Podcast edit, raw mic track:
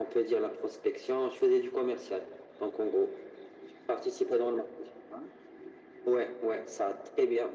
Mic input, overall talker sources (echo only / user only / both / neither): echo only